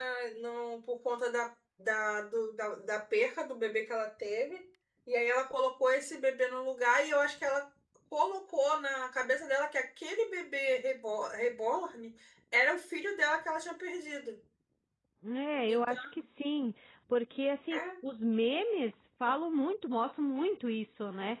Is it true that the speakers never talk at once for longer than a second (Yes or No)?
Yes